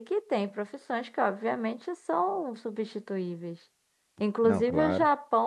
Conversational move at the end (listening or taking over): listening